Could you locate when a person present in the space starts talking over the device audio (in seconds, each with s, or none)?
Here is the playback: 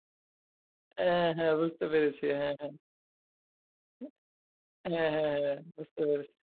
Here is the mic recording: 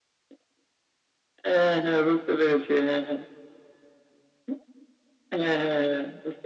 none